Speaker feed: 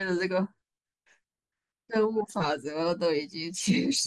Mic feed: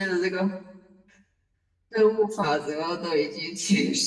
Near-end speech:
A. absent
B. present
A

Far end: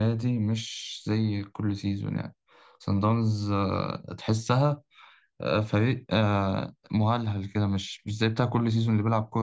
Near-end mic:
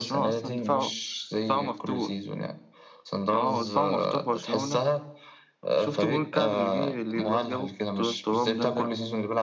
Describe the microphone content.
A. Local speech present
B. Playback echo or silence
A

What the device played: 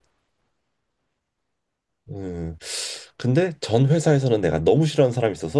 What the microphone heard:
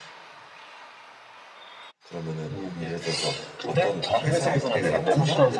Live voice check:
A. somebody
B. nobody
A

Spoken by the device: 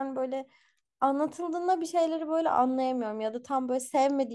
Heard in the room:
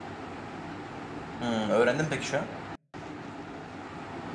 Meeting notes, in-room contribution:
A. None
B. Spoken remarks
B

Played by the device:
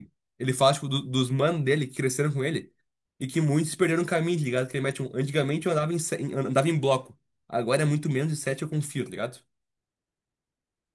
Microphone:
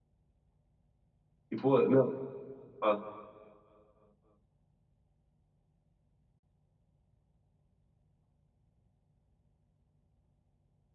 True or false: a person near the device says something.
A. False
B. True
B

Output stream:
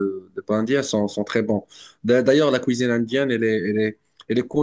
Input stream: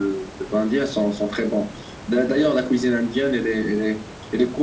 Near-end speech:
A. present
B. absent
B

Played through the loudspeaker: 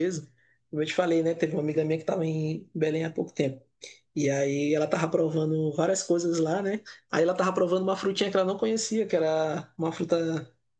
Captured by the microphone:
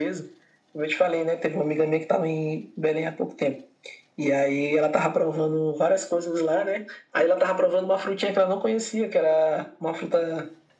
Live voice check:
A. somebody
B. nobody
B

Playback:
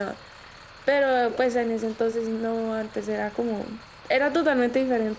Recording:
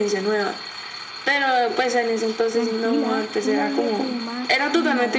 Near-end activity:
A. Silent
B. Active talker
B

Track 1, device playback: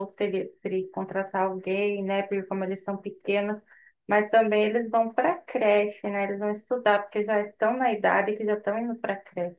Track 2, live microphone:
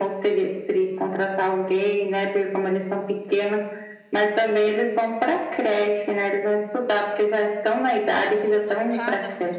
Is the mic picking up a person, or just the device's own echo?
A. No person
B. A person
B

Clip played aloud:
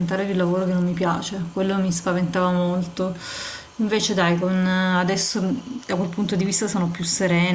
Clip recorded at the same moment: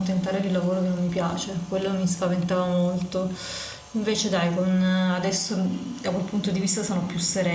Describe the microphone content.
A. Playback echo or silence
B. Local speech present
A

